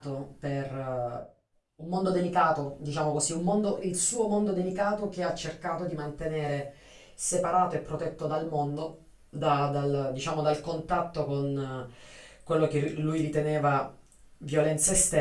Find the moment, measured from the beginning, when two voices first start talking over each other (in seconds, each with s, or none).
none